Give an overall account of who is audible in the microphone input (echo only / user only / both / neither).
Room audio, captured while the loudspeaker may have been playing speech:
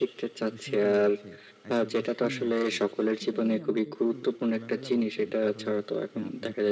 both